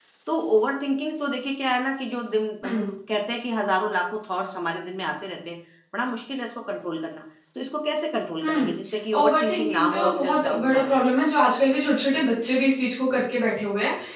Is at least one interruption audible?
Yes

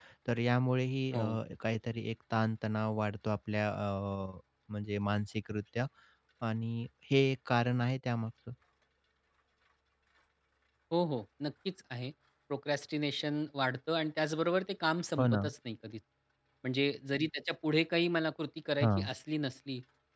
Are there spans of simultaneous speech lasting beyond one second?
No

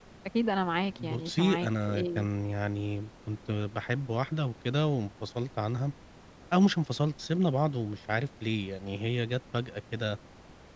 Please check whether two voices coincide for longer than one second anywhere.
Yes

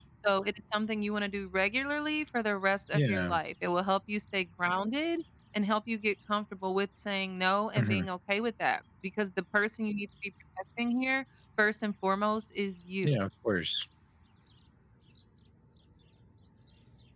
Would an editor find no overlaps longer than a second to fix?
Yes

